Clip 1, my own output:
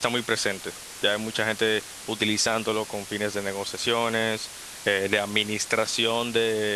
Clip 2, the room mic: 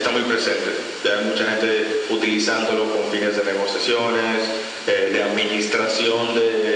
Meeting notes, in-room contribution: none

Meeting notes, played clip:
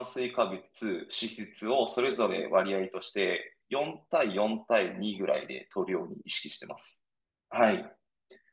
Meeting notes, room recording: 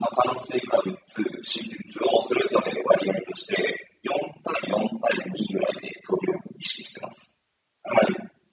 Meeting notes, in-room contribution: none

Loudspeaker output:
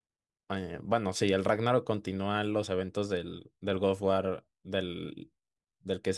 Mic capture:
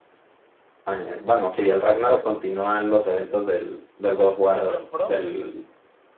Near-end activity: present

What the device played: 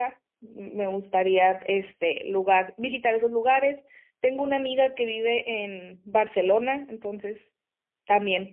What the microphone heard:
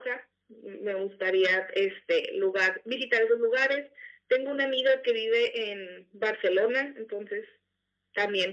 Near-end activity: none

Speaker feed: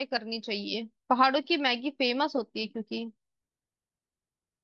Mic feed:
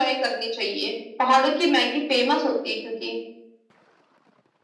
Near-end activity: none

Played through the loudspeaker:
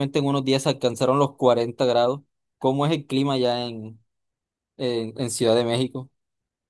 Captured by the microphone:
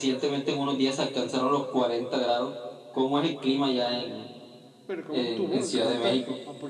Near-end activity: present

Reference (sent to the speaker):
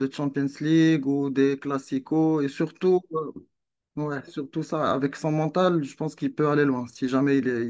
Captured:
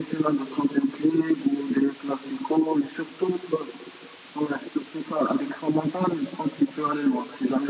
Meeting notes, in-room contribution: none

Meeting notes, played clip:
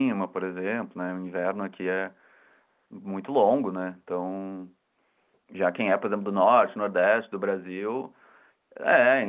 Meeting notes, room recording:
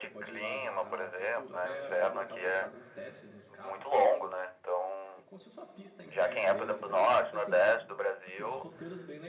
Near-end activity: present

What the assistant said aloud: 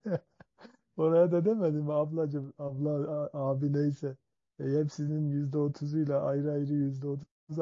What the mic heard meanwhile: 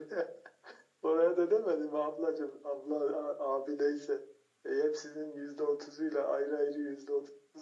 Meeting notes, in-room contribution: none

